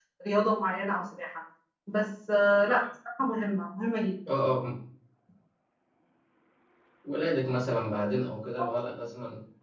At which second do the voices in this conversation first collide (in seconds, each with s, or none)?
none